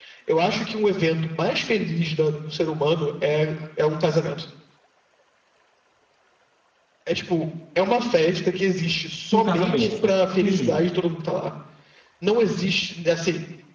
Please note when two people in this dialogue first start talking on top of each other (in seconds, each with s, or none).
9.3 s